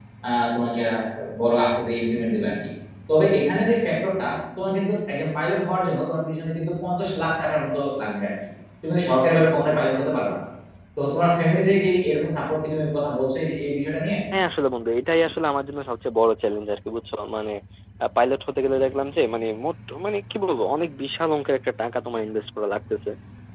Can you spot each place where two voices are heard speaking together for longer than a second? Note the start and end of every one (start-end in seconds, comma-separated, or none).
none